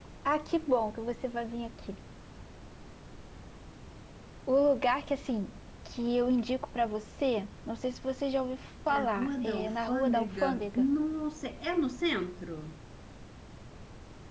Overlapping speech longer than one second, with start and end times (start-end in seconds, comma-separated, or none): 8.9-10.9